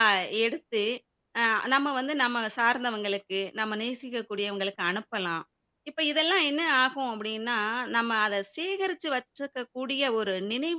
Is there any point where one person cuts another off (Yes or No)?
No